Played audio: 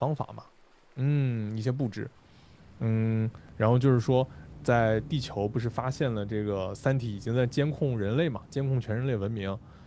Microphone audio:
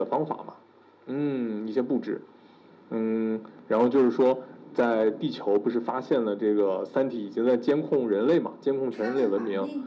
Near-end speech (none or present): present